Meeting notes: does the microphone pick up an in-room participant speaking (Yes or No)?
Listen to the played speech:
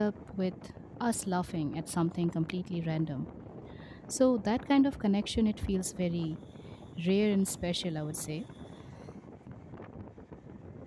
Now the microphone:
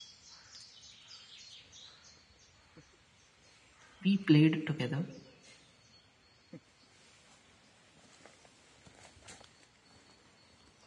Yes